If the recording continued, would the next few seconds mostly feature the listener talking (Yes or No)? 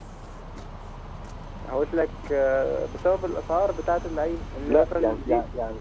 Yes